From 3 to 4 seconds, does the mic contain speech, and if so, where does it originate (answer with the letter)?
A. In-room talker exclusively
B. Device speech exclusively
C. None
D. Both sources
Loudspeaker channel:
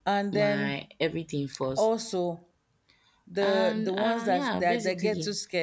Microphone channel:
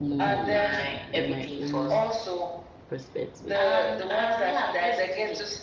D